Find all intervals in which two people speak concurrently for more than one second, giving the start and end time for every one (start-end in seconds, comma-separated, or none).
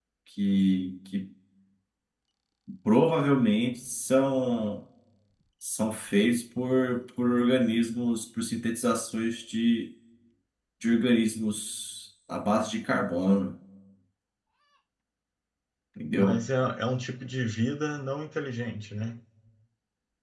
none